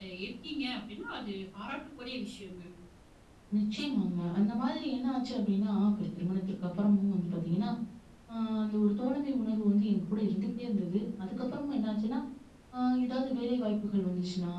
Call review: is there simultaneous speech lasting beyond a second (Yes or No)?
No